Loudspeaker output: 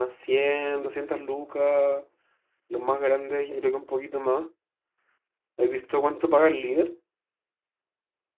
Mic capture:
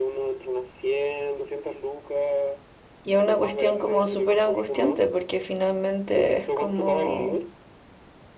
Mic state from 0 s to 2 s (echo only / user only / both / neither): echo only